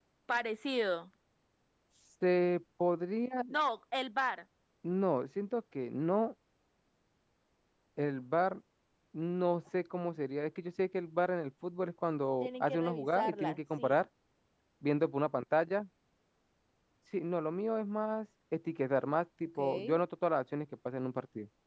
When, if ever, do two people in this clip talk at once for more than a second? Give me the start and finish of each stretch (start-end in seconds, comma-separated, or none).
12.4-14.0